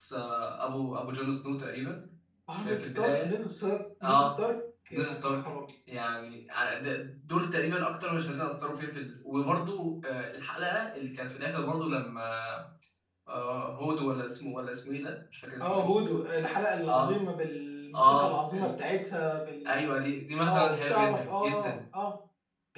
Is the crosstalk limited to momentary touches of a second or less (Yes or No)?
No